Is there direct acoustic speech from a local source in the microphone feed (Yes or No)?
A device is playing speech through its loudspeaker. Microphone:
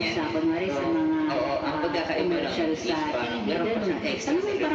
No